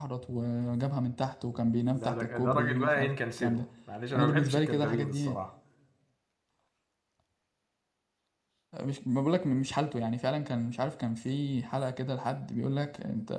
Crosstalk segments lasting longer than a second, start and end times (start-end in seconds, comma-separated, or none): 1.9-3.6, 4.2-5.4